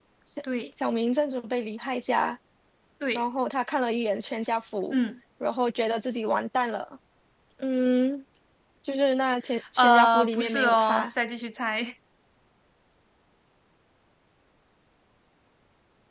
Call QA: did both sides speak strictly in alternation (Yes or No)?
No